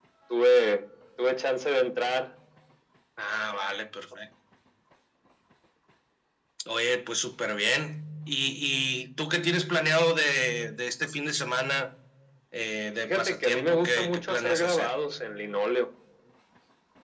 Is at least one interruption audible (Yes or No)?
Yes